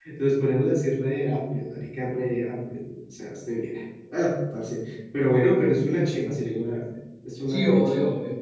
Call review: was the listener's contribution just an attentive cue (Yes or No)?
No